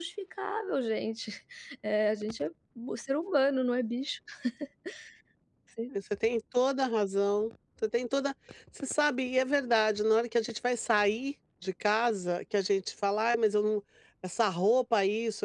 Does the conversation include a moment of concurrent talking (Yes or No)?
No